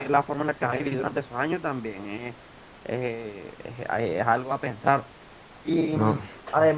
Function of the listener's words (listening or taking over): listening